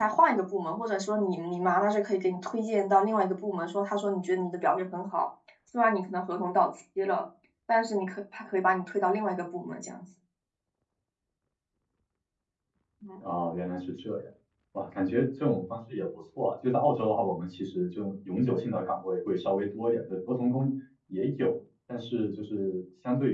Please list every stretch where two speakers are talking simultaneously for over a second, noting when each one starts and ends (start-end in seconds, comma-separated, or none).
none